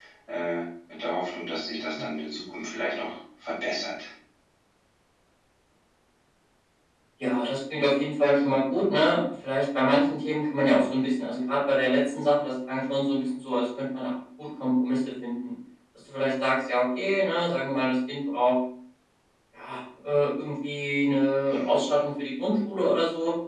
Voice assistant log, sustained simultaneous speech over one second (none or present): none